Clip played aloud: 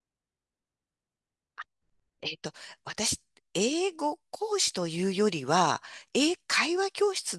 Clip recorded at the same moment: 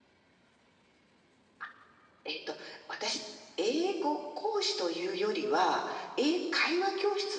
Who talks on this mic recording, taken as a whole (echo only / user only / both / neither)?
echo only